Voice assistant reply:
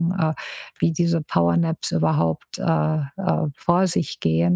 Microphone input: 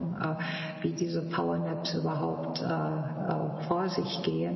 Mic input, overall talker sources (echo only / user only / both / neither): echo only